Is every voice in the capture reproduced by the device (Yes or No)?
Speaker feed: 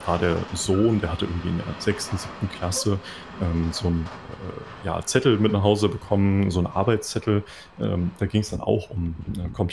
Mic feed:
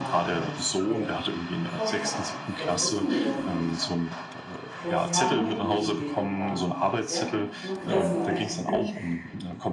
No